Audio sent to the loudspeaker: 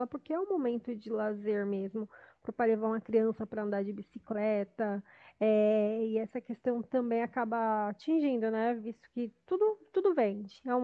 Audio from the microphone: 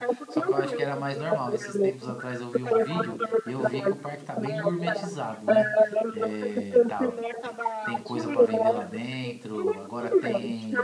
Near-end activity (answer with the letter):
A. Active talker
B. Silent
A